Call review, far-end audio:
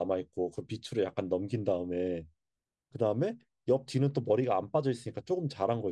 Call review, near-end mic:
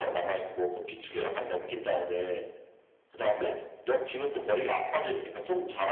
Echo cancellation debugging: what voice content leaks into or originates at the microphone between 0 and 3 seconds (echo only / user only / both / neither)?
echo only